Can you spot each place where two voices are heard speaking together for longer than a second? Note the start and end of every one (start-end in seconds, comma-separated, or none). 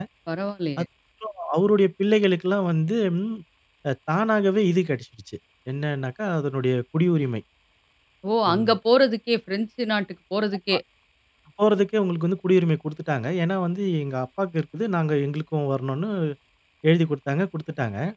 none